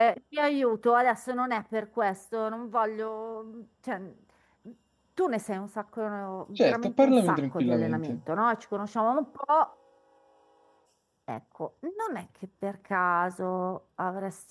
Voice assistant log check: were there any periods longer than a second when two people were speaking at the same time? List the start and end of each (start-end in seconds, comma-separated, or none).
6.6-8.2